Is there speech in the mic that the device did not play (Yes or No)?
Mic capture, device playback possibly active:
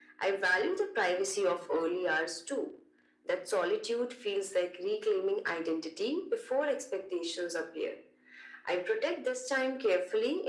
No